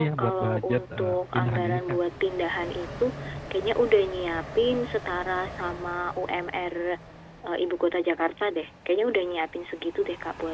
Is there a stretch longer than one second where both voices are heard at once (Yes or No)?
Yes